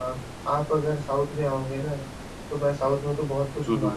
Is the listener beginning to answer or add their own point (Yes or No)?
No